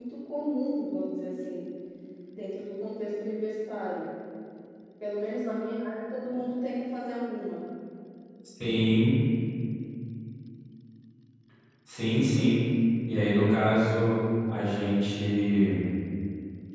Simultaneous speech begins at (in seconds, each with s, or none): none